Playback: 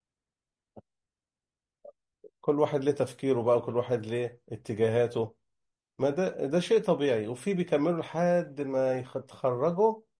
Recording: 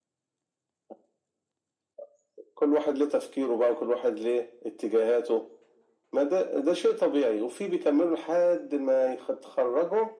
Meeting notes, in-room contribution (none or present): none